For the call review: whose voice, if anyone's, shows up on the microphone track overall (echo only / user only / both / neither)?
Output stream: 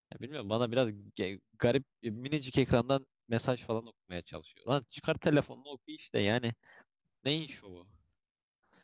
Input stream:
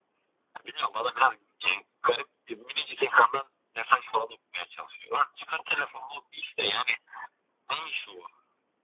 echo only